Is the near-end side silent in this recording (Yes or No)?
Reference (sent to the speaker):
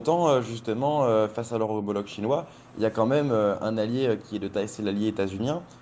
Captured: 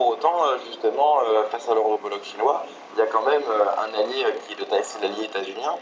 Yes